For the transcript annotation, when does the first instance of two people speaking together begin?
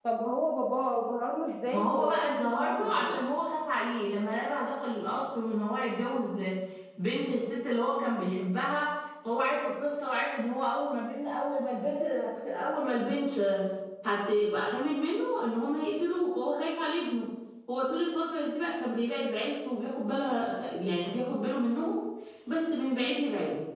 1.7 s

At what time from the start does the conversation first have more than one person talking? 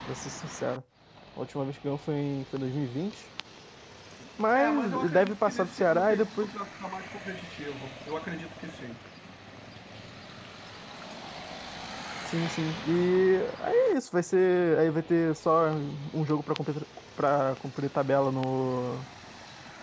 4.5 s

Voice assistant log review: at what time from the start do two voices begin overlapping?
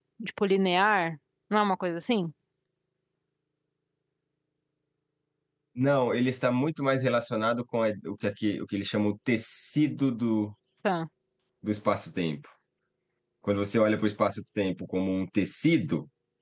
none

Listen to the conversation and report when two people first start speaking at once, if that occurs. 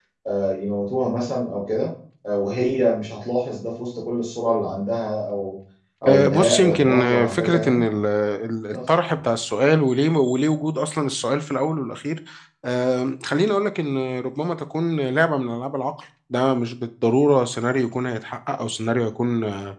6.1 s

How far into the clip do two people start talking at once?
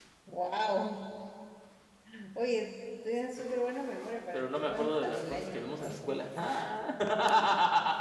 4.3 s

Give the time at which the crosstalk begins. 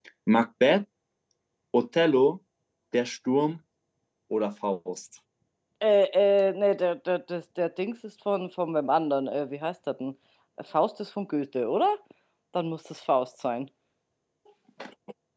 none

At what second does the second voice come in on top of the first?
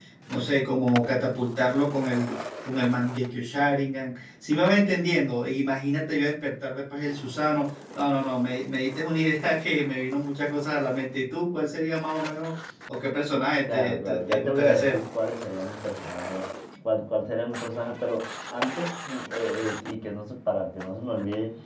13.7 s

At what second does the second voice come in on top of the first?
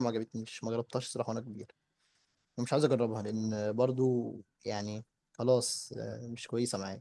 none

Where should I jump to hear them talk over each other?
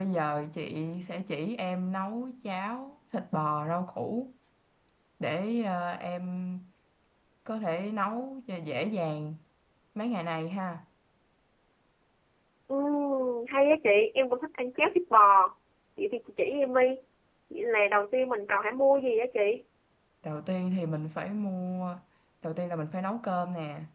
none

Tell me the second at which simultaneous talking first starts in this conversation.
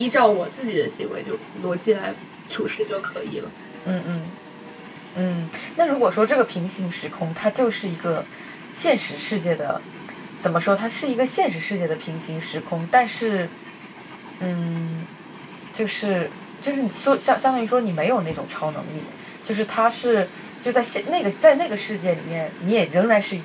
none

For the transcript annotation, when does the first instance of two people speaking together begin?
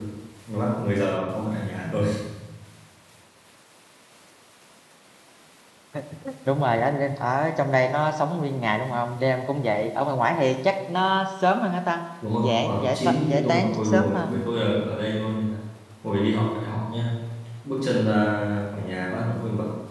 12.4 s

